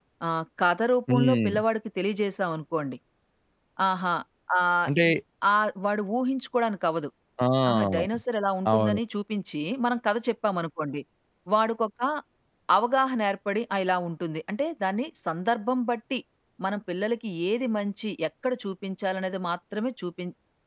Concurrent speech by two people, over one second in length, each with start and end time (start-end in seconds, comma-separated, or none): none